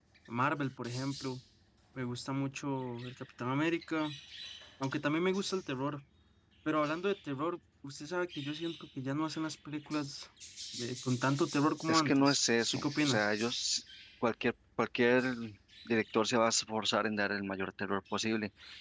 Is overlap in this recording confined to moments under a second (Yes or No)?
No